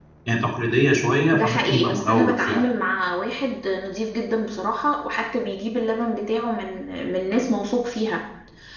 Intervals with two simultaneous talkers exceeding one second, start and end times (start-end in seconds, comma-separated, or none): 1.3-2.6